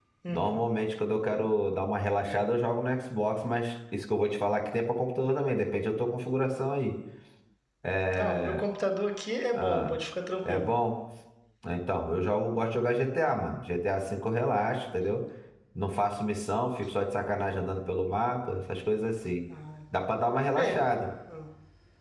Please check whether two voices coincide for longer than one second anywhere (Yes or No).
No